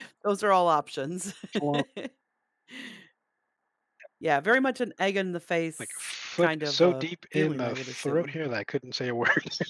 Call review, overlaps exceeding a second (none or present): present